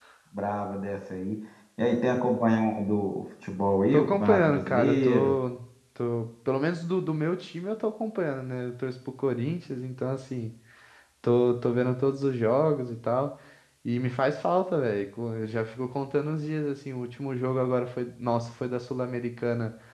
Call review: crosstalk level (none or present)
present